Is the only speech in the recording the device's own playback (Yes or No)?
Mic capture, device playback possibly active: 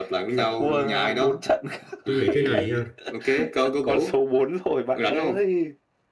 No